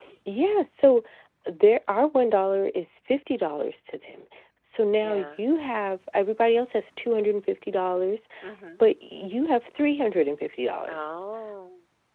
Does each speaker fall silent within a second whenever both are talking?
Yes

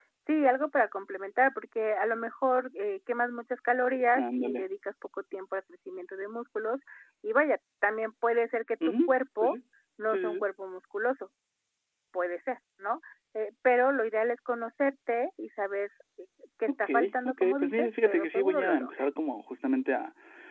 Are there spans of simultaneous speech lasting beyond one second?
Yes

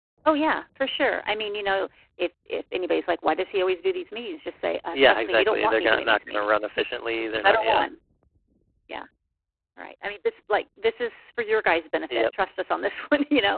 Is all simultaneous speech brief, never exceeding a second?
No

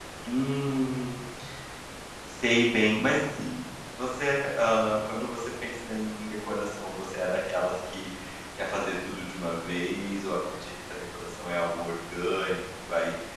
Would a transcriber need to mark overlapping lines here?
No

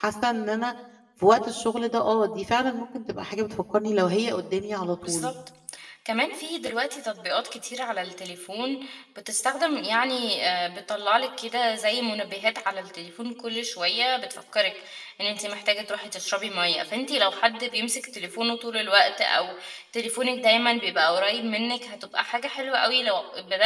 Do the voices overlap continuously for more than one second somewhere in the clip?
No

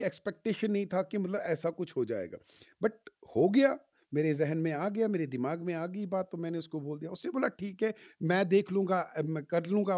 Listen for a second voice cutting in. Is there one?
No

